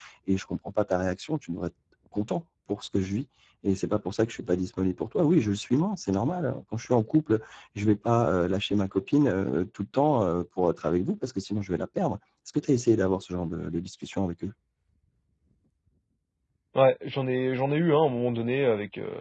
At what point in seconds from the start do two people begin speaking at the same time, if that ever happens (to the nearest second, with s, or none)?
none